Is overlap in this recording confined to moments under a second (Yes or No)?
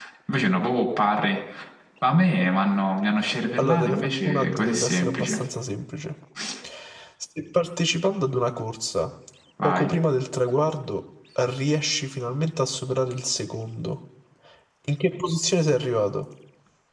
No